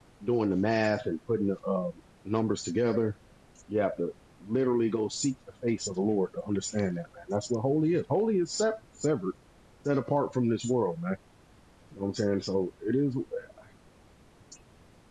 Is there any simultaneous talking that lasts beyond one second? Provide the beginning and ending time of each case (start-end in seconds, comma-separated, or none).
none